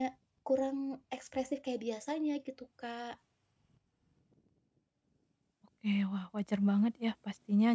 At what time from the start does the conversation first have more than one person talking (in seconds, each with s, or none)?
none